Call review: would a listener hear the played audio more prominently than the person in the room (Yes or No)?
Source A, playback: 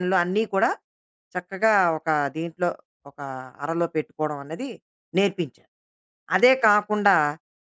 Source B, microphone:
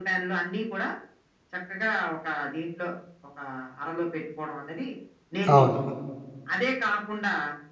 No